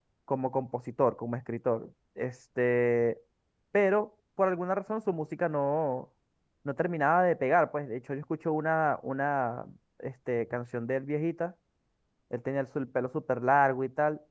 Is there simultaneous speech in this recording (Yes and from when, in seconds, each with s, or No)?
No